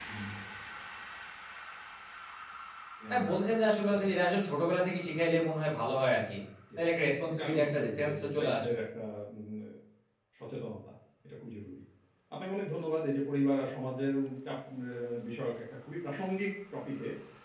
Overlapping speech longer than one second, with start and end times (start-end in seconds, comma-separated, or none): 7.3-8.7